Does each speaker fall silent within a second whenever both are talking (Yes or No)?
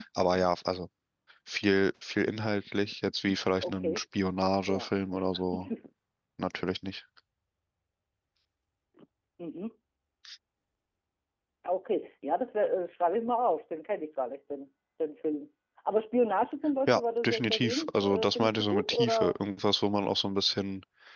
No